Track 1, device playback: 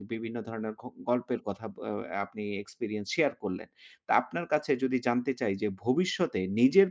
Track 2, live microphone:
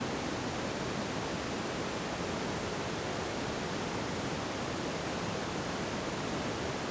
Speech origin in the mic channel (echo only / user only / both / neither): neither